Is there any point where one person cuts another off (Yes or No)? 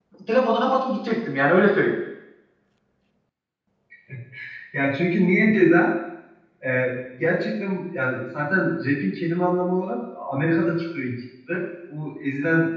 No